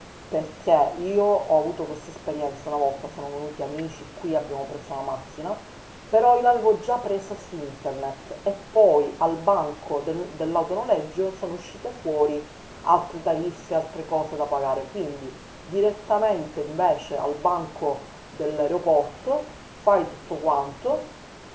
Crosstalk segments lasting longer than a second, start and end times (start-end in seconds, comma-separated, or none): none